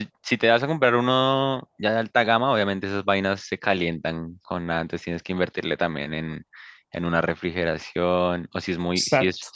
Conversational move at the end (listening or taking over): listening